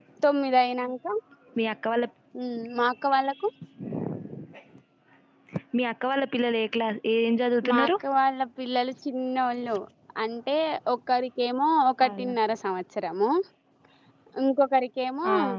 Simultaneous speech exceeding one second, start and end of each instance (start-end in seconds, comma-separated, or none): none